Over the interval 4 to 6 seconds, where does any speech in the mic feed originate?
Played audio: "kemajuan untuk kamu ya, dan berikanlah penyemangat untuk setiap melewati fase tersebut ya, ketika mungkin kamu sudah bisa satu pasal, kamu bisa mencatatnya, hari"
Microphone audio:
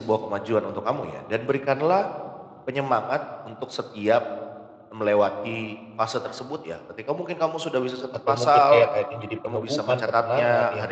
echo only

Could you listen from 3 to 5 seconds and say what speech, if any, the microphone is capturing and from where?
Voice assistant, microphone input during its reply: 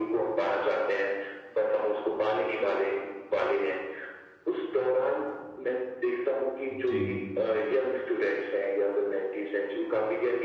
echo only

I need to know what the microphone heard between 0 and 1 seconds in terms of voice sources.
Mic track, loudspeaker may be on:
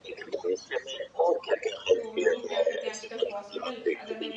echo only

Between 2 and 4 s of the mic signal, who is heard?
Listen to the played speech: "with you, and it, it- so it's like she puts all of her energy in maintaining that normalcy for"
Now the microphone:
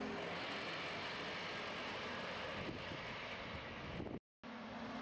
neither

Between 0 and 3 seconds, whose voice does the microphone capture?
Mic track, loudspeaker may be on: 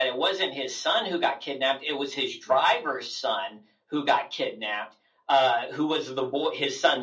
echo only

